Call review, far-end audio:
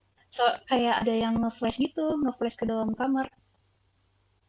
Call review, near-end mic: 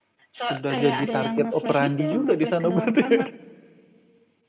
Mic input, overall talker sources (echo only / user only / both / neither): both